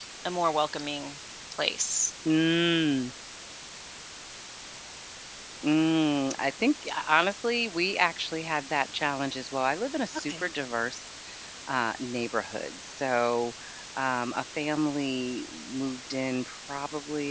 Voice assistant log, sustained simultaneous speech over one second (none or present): none